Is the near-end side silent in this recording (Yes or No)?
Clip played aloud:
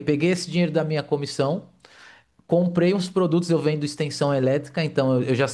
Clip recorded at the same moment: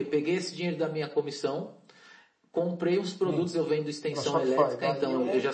No